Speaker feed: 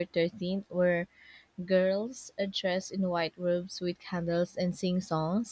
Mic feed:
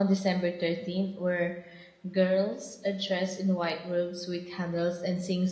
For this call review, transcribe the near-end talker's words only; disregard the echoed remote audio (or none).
none